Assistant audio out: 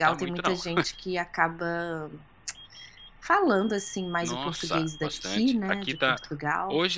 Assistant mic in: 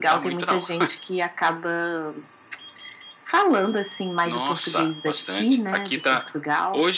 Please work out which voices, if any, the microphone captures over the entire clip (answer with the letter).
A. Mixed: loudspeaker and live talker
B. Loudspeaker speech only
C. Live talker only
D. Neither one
B